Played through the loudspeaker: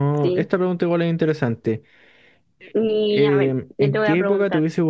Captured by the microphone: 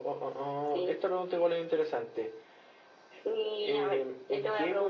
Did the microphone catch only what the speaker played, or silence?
Yes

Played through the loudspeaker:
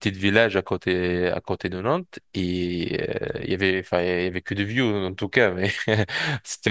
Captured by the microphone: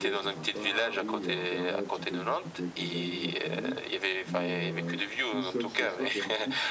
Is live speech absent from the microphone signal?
No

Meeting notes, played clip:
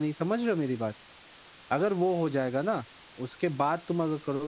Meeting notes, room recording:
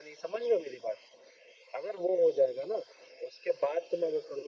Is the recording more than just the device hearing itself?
No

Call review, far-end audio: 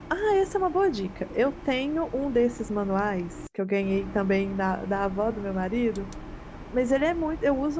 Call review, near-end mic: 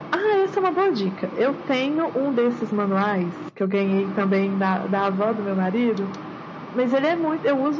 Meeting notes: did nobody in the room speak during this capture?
Yes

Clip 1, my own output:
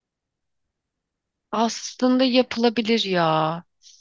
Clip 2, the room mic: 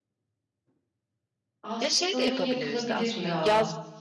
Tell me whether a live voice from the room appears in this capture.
Yes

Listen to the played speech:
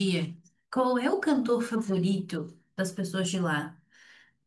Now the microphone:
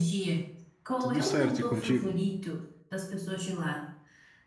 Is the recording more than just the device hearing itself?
Yes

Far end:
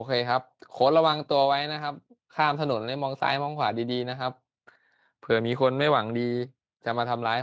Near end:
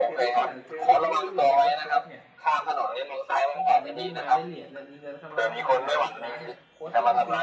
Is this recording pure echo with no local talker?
No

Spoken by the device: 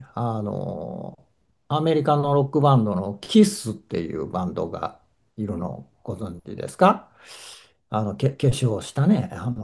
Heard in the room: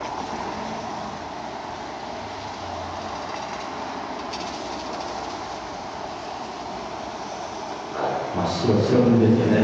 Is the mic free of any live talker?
No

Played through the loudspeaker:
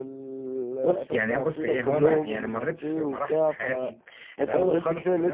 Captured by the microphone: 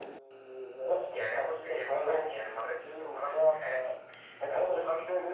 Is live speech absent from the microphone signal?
Yes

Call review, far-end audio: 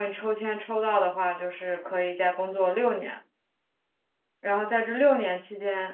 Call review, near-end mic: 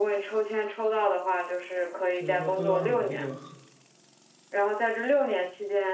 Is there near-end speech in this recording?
Yes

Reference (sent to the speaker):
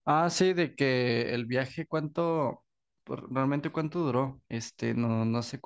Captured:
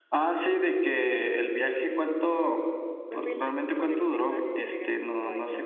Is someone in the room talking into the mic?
Yes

